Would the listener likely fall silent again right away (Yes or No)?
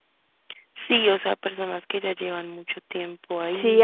No